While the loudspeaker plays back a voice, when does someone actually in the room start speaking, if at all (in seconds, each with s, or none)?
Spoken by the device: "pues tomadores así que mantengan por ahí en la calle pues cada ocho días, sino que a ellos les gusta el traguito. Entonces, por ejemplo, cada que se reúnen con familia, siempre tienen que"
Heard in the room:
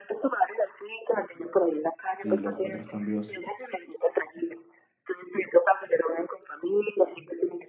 2.2 s